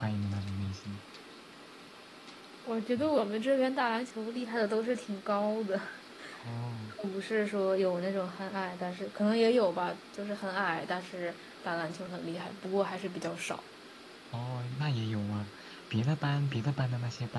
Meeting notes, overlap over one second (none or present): none